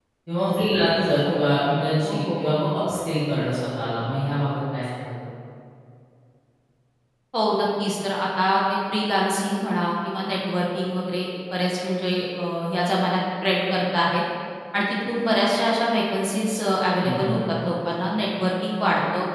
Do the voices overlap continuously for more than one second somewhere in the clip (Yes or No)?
No